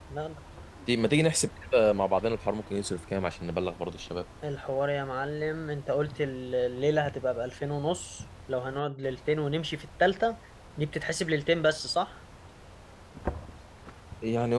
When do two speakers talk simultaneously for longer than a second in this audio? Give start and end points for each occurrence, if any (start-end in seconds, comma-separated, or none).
none